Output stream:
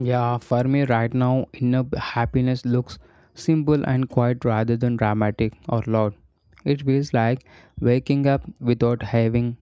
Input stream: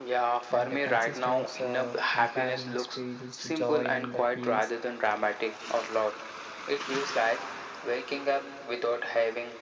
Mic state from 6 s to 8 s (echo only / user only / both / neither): echo only